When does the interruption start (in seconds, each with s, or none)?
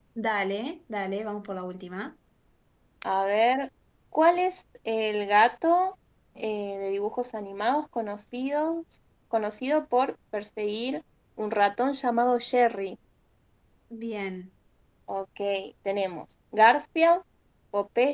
none